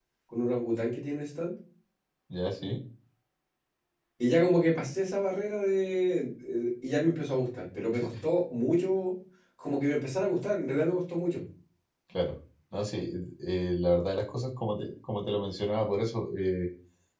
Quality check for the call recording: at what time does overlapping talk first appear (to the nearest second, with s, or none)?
none